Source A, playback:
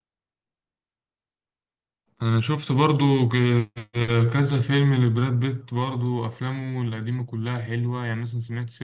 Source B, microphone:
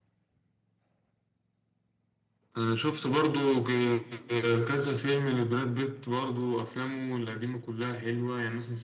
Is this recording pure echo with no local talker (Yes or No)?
Yes